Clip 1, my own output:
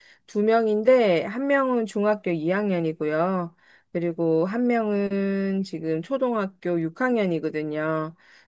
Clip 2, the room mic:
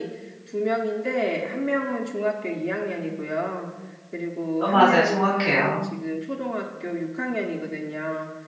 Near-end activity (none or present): present